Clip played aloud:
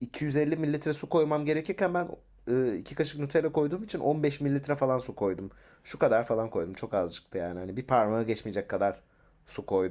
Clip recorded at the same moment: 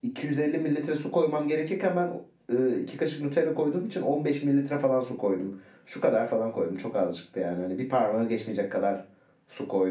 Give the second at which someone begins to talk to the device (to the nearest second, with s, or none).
none